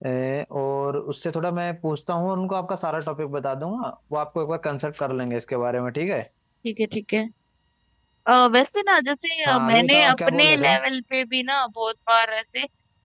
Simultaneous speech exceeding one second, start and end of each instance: 9.4-10.7

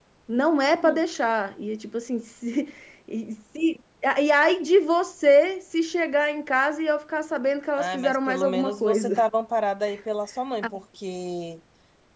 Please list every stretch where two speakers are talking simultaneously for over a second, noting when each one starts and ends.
7.8-9.1

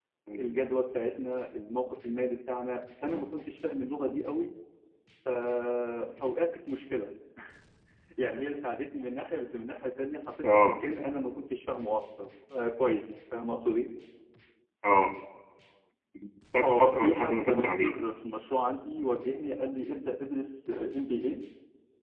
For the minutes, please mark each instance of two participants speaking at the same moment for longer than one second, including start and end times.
16.6-17.9

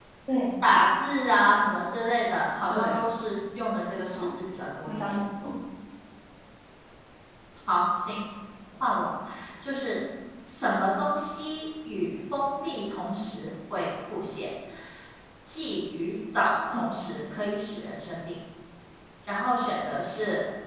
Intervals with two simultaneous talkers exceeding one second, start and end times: none

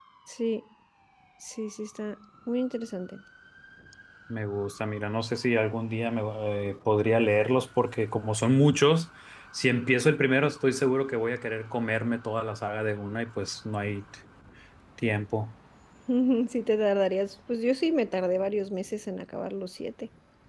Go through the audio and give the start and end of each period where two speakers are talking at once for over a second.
none

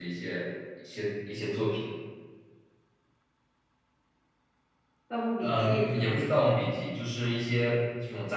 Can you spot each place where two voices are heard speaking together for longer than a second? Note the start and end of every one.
5.4-6.8

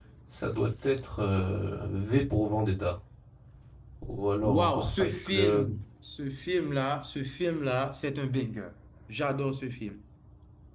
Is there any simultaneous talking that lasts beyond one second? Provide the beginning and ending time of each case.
4.4-5.7

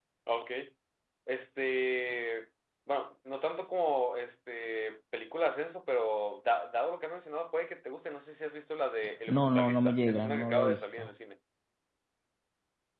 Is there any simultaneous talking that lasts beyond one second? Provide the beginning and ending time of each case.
9.3-11.1

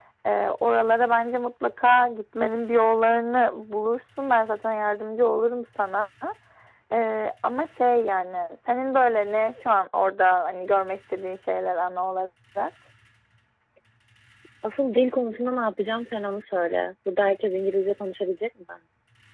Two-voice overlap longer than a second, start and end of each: none

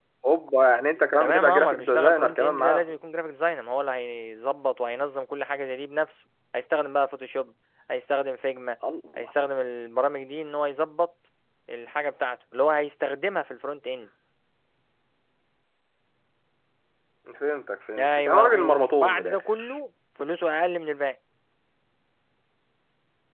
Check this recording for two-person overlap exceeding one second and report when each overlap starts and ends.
1.2-3.0, 18.0-19.7

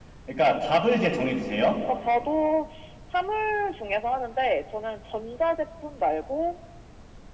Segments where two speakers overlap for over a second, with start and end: none

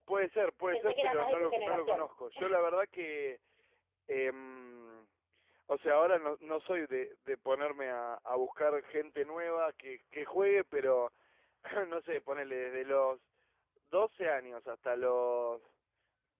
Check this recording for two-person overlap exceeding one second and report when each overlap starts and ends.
0.7-2.1

